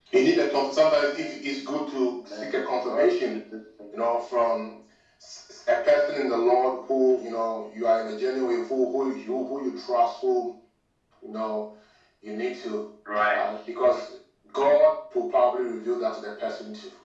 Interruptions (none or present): present